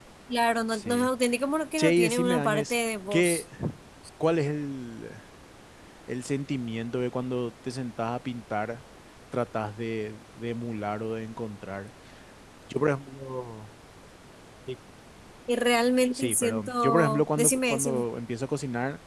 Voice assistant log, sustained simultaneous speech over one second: present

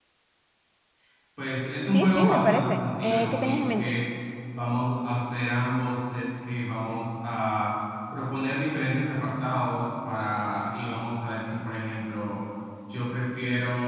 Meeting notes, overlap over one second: present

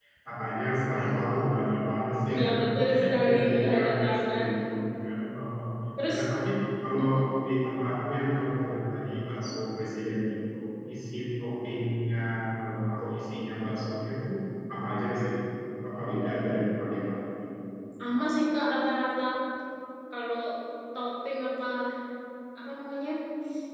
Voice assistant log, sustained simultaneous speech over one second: present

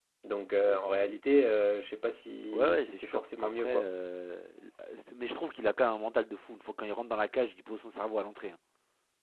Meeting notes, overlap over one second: present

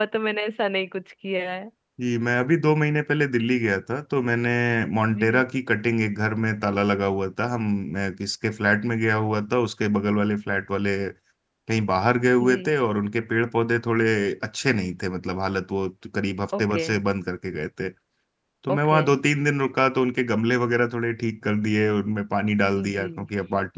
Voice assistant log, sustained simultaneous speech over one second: none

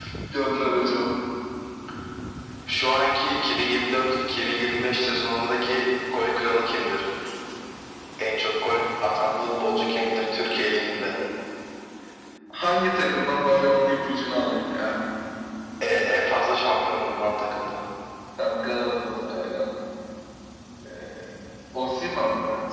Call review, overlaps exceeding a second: present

